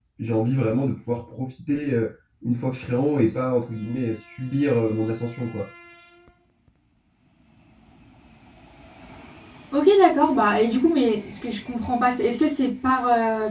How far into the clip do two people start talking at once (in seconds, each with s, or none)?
none